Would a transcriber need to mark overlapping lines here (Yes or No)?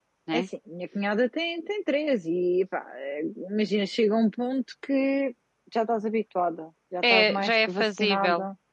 Yes